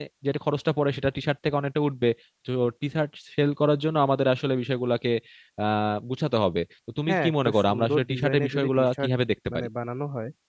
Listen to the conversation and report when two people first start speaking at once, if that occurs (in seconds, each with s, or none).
7.1 s